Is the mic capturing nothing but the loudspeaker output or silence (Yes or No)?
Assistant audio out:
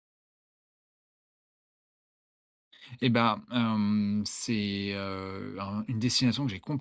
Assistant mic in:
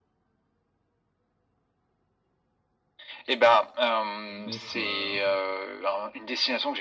No